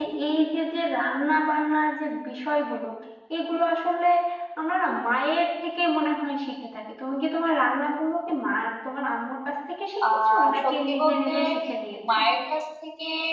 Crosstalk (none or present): present